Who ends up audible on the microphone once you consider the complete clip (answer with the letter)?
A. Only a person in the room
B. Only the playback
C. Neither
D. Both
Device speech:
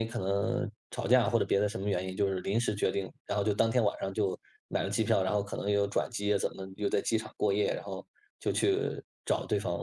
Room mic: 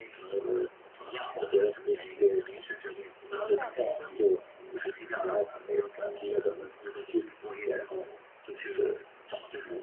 D